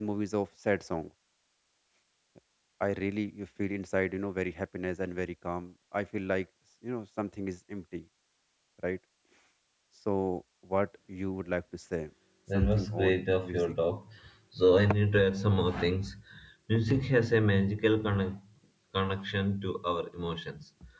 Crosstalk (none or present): present